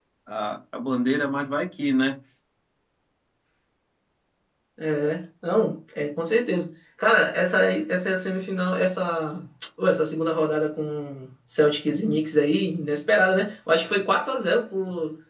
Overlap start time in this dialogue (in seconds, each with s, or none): none